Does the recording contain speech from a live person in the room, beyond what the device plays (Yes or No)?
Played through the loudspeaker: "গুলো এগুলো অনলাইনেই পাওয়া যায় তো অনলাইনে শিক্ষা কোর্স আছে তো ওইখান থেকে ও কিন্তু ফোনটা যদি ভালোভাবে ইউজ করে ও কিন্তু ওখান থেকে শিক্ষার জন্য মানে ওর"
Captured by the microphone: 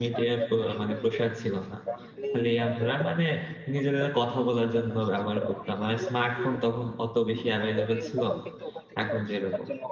Yes